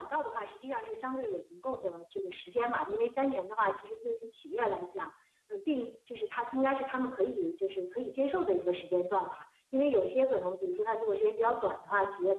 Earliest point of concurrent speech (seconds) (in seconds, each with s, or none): none